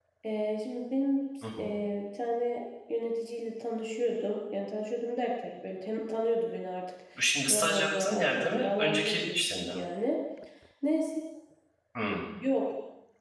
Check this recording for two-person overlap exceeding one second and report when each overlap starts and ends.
7.5-9.7

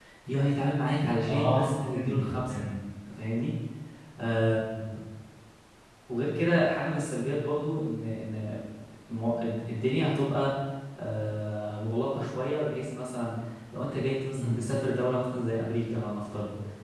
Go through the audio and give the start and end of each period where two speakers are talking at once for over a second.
1.3-2.6

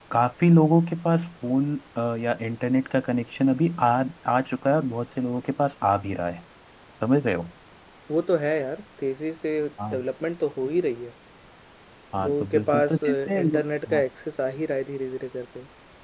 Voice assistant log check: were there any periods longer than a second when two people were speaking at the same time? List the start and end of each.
12.2-14.0

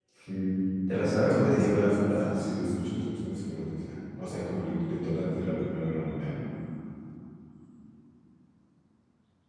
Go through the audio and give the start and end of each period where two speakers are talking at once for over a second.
0.9-2.5

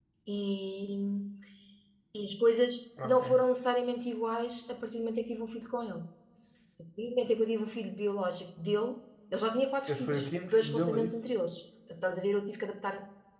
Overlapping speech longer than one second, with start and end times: 9.9-11.1

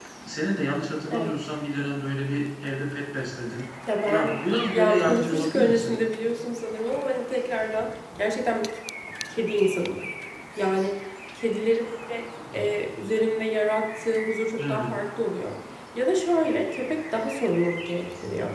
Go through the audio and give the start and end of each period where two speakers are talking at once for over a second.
4.7-6.0

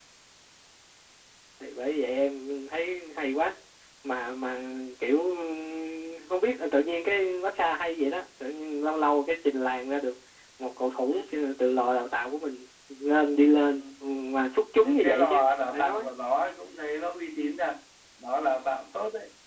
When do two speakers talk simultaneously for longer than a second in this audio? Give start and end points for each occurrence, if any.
14.8-16.1

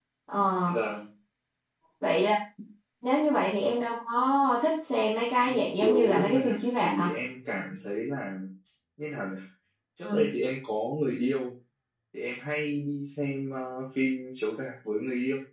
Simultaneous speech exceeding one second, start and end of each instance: 5.5-7.1

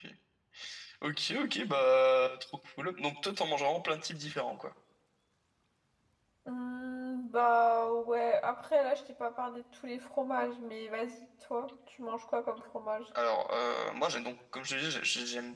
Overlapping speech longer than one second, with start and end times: none

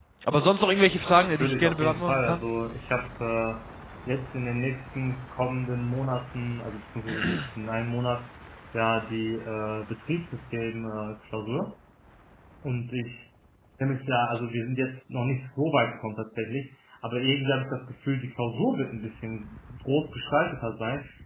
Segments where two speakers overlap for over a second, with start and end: 1.2-2.4

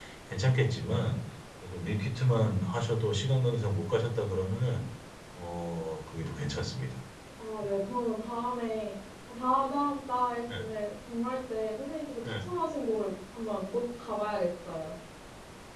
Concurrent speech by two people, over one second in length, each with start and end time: none

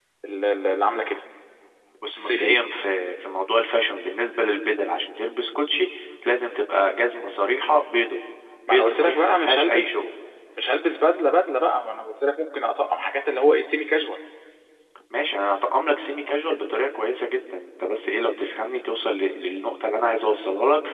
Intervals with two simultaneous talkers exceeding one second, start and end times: 8.7-10.0

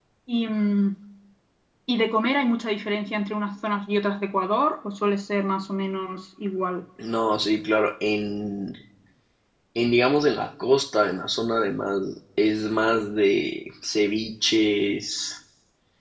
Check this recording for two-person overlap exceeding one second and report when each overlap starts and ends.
none

